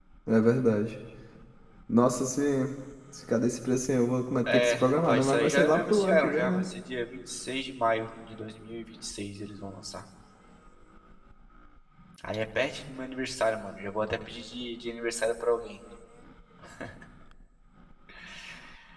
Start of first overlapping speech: 4.5 s

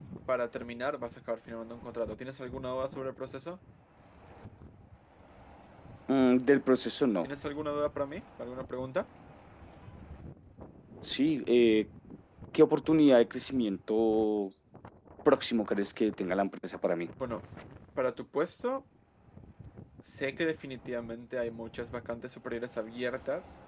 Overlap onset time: none

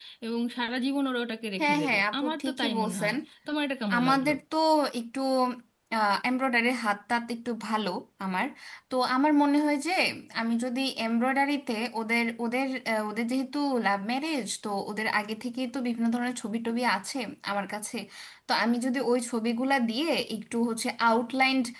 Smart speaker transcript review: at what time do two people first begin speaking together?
1.6 s

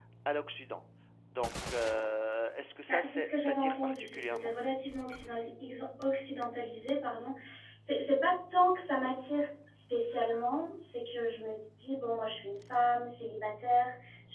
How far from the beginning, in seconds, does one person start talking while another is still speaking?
2.9 s

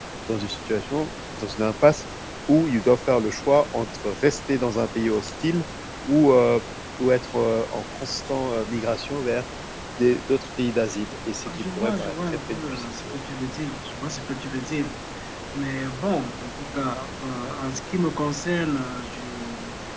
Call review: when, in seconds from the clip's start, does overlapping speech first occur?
11.5 s

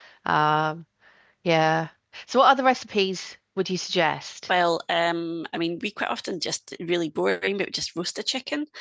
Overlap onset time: none

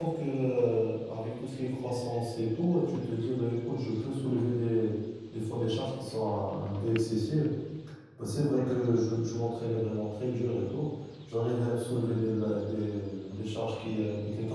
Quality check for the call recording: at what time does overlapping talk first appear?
none

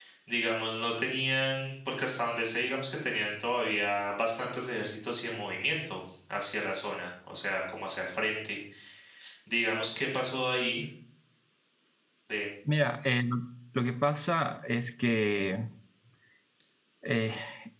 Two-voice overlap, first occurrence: none

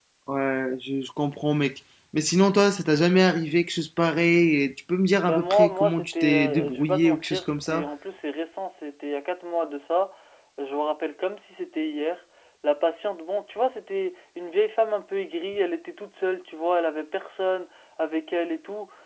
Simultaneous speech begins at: 5.2 s

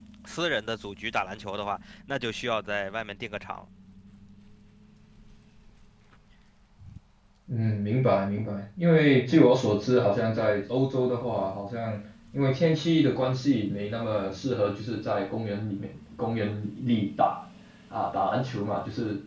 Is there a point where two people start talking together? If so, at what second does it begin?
none

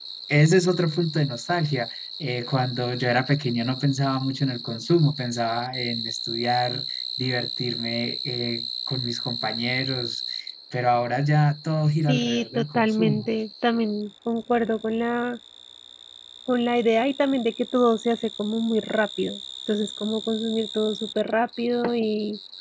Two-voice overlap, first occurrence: 12.1 s

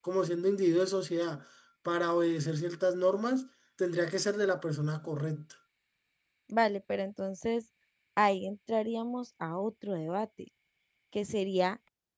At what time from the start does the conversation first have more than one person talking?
none

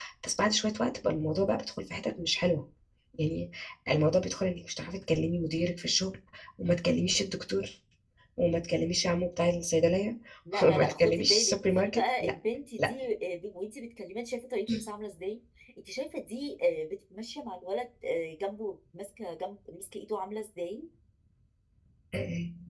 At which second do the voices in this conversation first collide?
10.6 s

